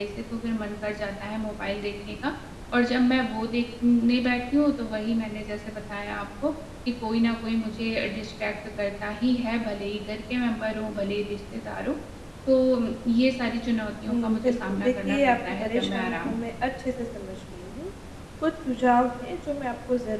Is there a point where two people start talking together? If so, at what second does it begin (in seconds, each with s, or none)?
14.1 s